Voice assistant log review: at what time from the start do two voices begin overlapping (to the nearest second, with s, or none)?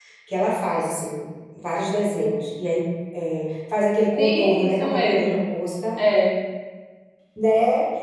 4 s